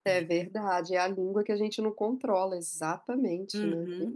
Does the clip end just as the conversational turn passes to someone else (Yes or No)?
Yes